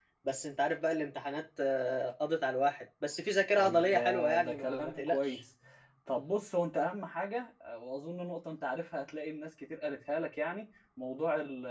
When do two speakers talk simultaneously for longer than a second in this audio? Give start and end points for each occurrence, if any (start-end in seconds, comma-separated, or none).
3.5-5.4